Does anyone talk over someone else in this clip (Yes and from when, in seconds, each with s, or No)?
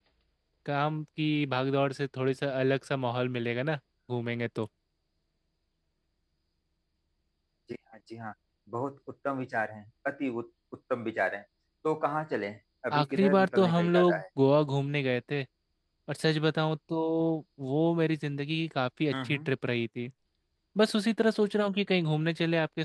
Yes, from 12.9 s